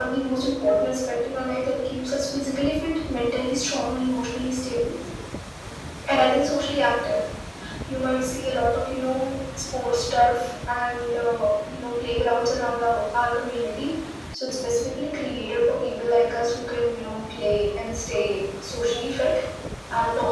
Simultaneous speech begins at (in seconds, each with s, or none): none